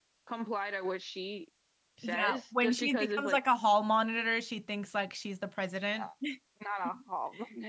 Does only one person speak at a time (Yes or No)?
No